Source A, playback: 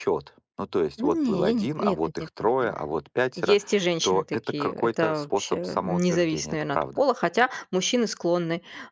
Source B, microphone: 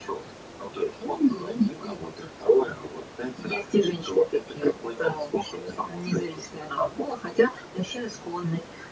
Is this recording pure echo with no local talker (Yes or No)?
Yes